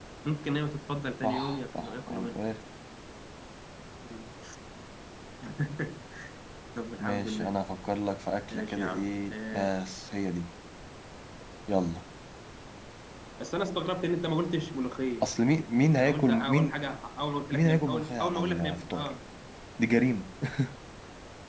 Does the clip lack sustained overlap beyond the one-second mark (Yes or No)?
No